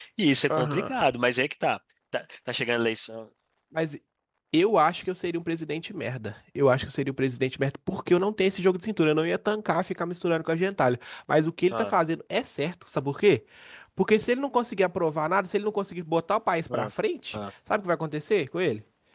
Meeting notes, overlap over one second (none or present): none